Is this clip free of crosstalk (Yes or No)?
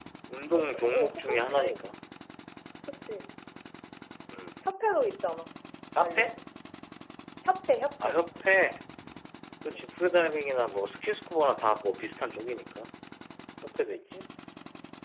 No